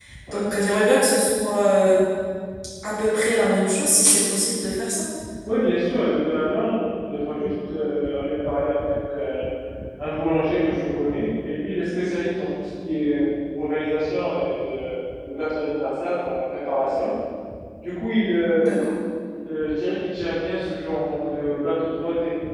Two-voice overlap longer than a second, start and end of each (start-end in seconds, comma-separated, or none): none